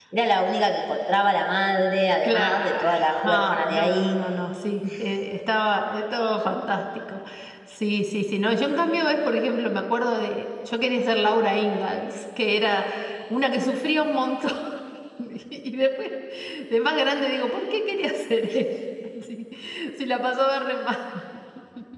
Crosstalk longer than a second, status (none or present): present